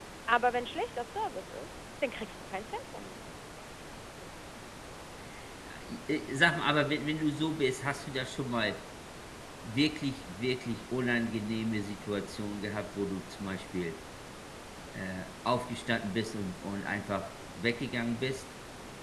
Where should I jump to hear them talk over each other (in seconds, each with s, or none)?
none